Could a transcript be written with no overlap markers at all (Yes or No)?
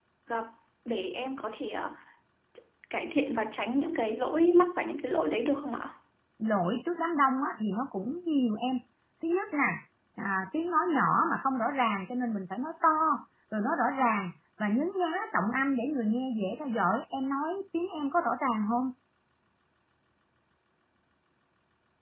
Yes